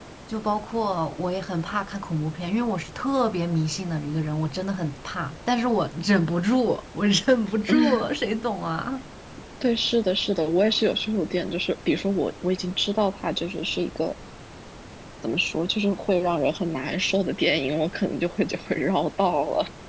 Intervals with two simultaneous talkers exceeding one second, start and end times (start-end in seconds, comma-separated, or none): none